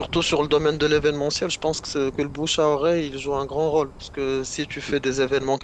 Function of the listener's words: listening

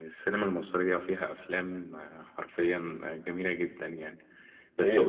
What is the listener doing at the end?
listening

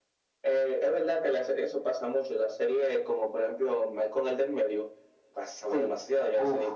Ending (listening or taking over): taking over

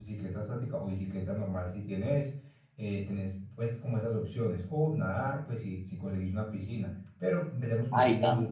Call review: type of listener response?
taking over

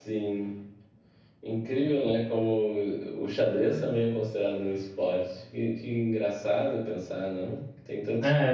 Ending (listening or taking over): taking over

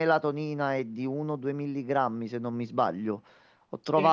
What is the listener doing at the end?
listening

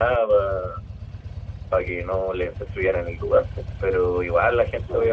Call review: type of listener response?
listening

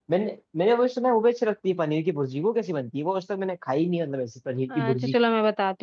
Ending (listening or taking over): taking over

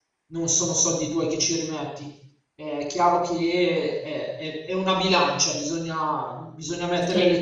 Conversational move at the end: listening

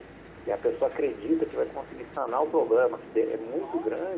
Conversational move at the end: listening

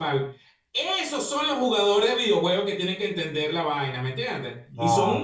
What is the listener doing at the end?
listening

